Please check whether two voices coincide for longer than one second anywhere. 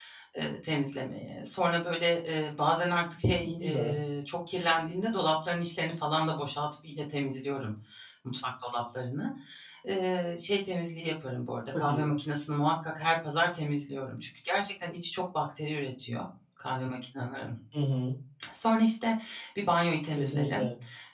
No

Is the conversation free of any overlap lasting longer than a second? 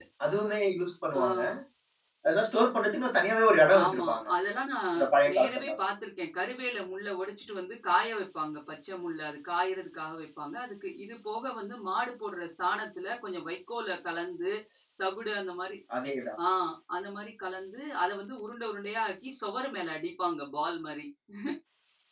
Yes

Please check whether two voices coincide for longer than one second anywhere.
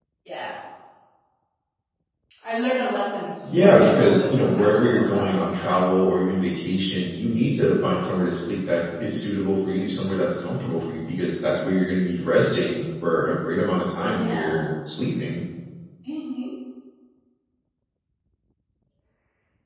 Yes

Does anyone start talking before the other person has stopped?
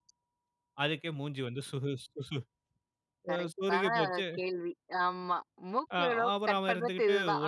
Yes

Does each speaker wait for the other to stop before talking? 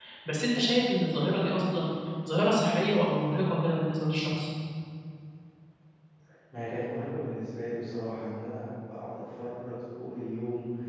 Yes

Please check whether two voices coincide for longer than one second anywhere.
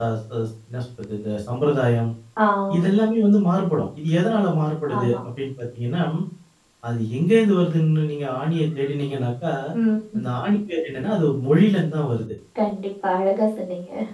No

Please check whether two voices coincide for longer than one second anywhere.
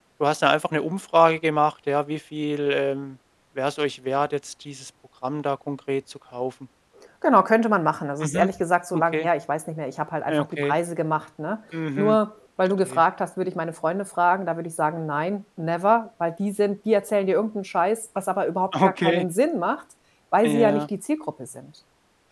No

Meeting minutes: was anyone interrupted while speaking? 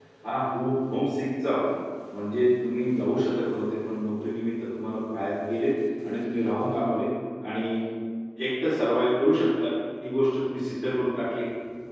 No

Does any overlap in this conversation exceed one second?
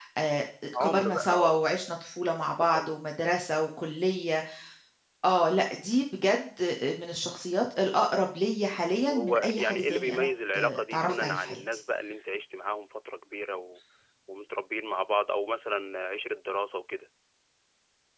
Yes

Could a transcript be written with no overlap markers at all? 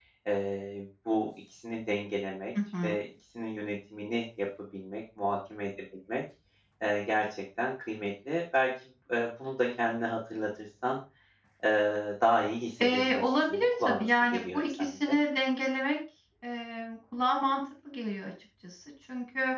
No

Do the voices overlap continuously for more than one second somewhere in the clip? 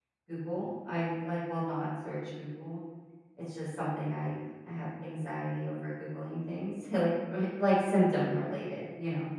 No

